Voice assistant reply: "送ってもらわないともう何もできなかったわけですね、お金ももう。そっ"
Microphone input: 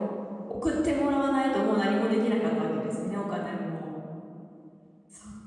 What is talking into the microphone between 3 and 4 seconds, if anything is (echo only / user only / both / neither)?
echo only